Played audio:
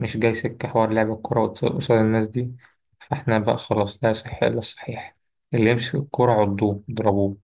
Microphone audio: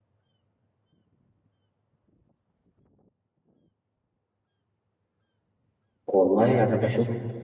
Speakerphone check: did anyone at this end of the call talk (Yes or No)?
Yes